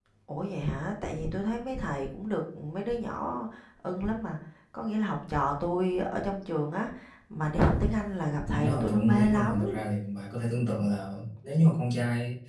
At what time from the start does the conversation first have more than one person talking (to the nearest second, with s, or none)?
9 s